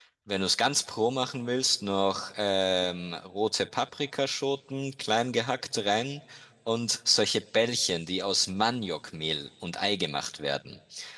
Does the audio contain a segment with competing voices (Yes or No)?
No